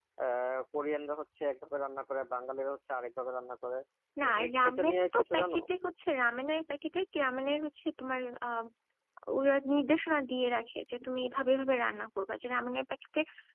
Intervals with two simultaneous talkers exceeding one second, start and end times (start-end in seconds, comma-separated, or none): 4.3-5.6